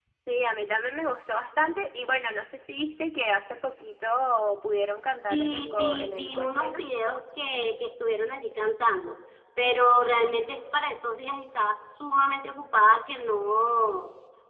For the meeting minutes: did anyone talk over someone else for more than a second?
Yes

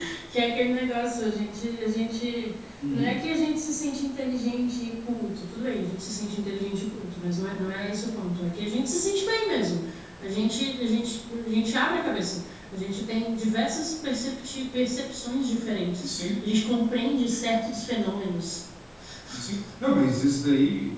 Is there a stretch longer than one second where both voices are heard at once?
No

